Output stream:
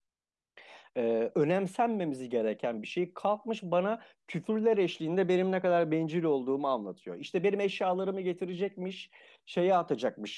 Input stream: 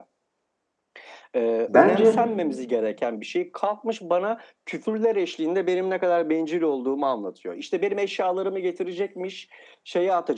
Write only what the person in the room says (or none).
Bence